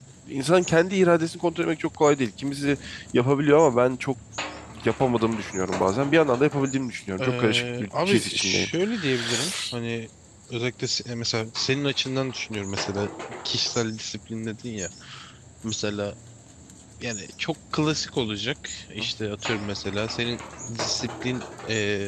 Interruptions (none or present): present